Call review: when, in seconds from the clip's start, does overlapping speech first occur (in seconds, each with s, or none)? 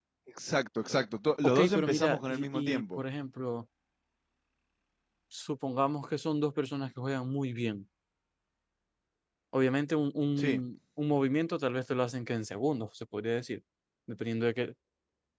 1.4 s